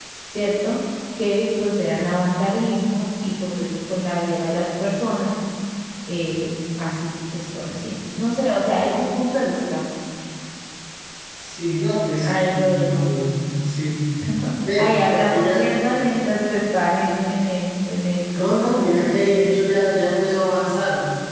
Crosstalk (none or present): present